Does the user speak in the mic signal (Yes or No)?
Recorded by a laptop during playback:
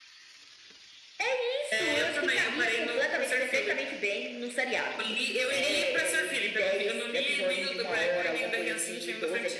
No